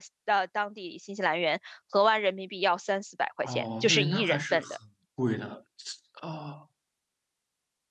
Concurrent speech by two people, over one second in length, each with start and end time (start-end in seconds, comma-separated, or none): 3.4-4.6